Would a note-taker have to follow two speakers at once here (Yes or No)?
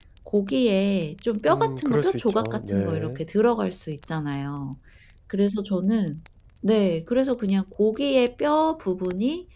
Yes